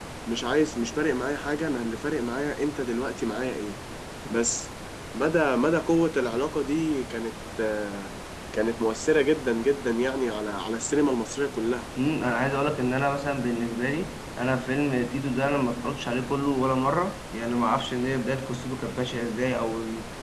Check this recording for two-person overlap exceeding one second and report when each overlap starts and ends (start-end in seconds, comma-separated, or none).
none